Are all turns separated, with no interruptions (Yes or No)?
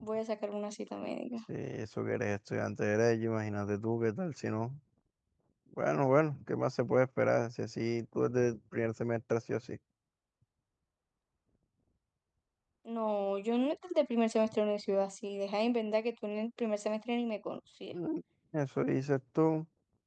Yes